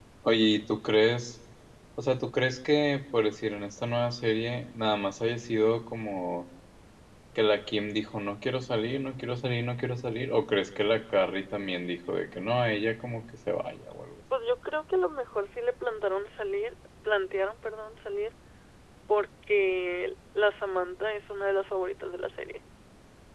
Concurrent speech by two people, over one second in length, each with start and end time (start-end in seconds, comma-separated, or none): none